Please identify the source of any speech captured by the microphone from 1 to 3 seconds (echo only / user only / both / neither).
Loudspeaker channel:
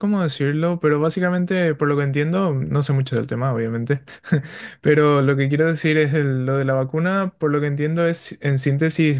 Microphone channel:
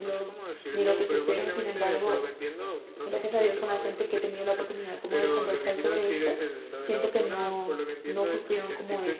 both